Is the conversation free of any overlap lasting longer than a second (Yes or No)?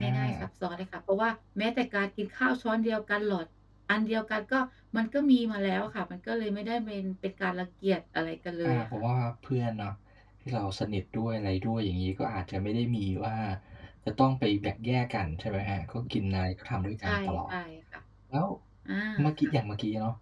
Yes